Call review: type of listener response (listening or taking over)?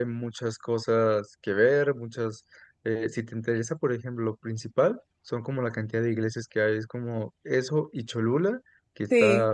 listening